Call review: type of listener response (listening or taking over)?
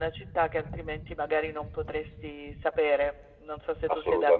taking over